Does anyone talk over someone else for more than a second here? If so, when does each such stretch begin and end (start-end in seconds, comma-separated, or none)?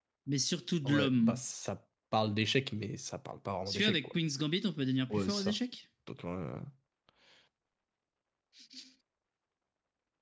none